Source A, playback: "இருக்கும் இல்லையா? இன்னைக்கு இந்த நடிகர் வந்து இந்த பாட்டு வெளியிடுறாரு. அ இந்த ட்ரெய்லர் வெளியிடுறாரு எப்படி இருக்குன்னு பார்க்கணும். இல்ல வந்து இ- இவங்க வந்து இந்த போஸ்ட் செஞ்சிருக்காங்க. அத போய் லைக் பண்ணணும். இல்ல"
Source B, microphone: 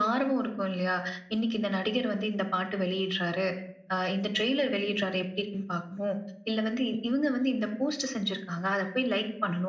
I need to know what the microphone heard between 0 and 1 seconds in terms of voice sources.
echo only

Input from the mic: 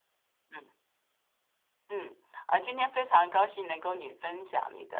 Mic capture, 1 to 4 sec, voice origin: user only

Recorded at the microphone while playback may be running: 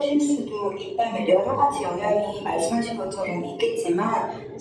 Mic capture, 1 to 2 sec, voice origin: echo only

